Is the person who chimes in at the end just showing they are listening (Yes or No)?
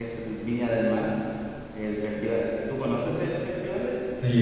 No